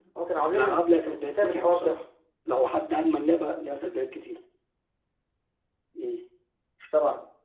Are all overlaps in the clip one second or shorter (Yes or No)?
No